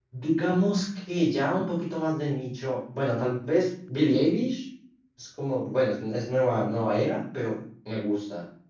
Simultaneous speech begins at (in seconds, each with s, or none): none